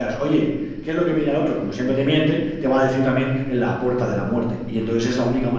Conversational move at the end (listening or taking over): listening